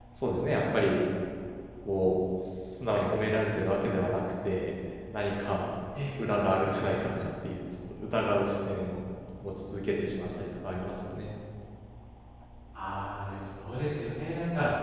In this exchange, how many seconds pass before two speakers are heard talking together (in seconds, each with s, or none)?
none